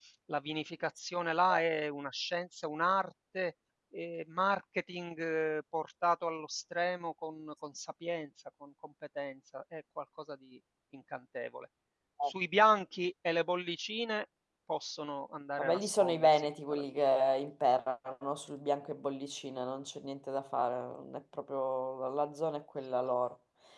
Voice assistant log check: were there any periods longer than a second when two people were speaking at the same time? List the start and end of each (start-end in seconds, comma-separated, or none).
15.6-16.8